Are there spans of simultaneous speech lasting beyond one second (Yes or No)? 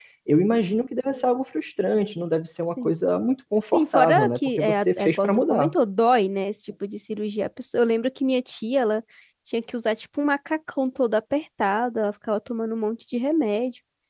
Yes